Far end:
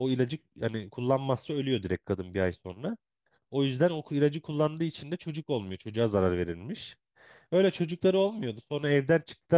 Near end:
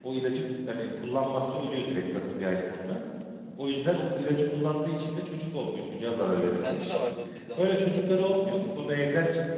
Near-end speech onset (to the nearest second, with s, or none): 7 s